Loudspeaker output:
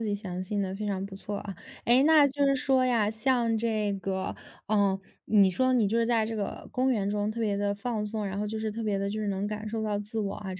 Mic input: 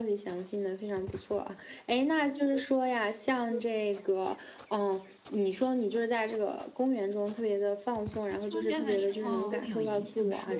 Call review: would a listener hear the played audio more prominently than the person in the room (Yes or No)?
Yes